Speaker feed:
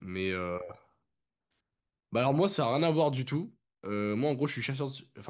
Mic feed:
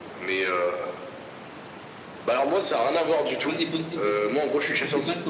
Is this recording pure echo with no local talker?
No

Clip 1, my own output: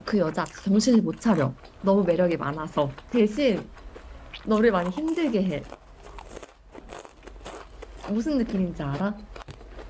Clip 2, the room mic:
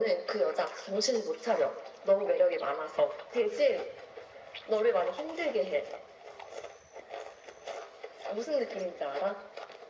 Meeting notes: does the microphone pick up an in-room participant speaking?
No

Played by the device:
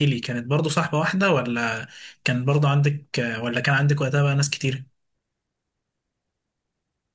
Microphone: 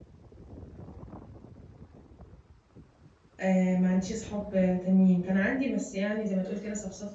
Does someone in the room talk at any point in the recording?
Yes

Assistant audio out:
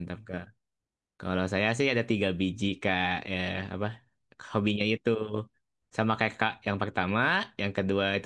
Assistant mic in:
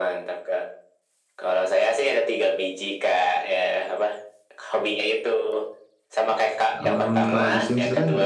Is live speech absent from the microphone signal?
No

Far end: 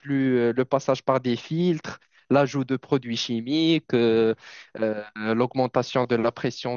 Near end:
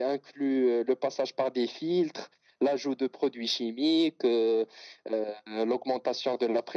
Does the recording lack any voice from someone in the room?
Yes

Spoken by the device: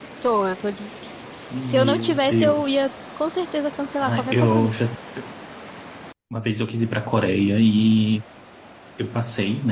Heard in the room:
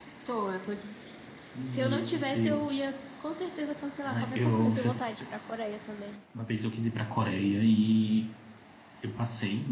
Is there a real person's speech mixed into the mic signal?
Yes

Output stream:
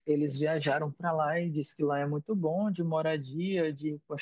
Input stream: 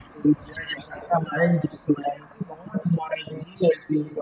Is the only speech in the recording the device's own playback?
Yes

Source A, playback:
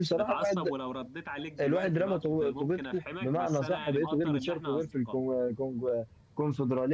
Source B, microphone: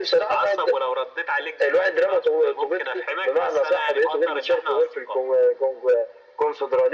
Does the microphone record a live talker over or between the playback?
No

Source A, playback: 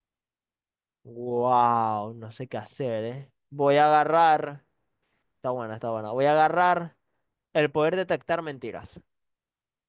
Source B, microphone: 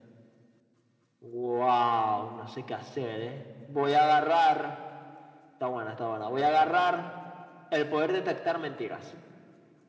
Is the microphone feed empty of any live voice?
Yes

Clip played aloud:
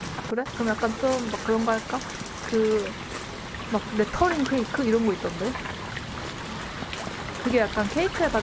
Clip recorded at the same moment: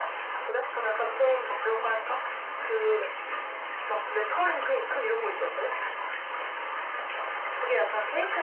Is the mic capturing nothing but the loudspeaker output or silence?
Yes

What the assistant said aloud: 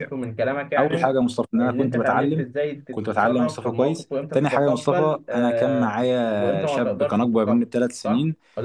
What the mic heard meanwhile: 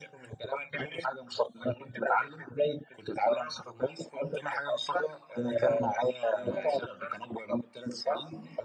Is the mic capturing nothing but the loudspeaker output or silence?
No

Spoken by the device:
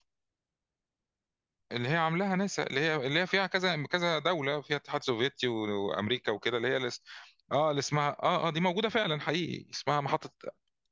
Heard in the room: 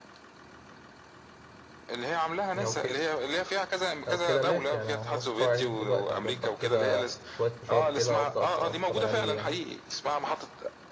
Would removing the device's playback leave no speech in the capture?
No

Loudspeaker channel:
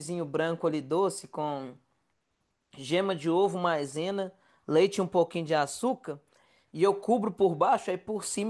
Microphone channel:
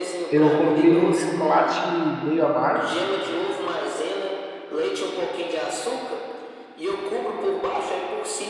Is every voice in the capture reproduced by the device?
No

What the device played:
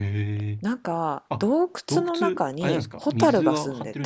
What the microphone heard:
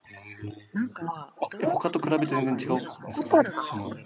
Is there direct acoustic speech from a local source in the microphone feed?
Yes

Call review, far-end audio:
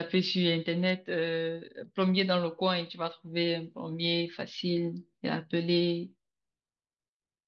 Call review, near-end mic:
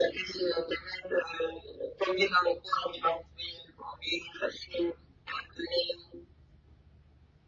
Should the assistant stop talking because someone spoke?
No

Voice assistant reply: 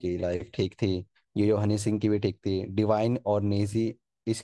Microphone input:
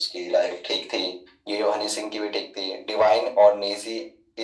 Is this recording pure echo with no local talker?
Yes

